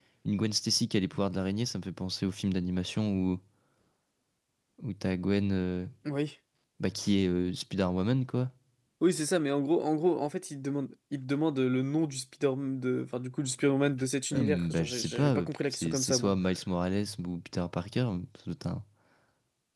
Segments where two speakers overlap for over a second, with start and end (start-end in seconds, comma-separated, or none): 14.3-16.3